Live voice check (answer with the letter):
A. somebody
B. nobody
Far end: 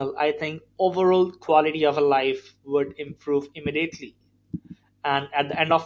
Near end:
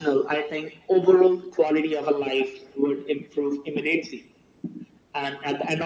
B